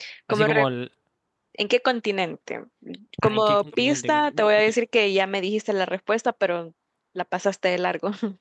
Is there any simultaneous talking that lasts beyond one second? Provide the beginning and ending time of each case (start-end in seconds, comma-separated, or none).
3.2-4.5